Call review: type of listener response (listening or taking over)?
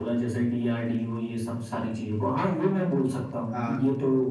listening